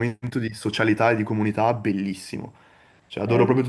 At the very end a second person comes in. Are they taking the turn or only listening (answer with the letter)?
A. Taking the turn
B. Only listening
A